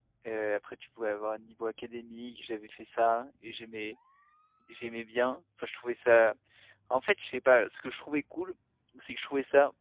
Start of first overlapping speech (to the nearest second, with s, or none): none